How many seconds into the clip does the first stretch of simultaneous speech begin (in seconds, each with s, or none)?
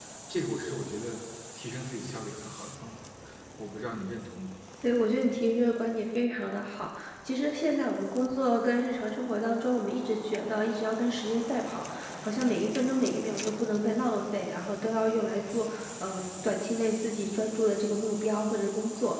none